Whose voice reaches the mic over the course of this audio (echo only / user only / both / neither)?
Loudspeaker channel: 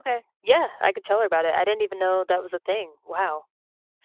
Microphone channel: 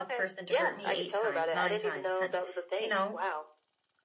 both